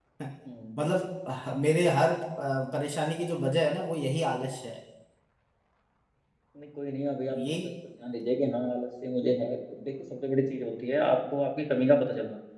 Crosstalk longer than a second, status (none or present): none